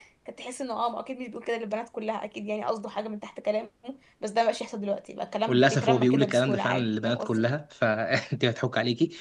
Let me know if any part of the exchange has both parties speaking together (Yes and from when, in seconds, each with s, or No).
Yes, from 5.5 s